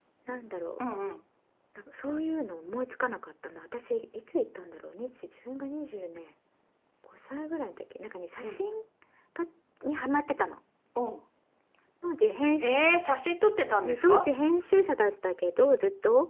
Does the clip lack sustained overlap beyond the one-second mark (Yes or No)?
Yes